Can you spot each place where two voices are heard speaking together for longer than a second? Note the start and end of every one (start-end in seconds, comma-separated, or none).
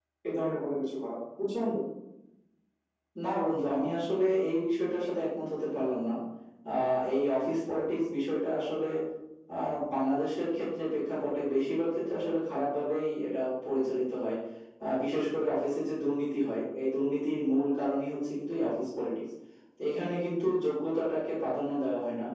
none